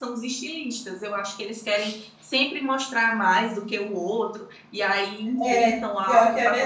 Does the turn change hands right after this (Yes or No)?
Yes